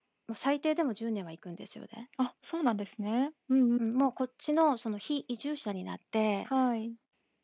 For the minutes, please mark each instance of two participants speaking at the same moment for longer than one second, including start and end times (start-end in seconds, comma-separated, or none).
none